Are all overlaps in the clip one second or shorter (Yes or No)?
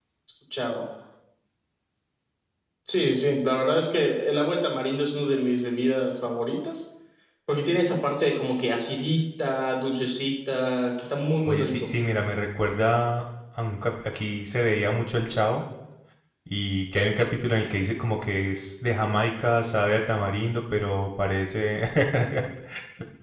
Yes